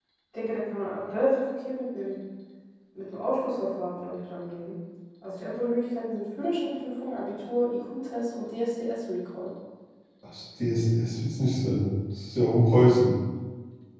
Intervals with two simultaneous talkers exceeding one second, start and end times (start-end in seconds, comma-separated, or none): none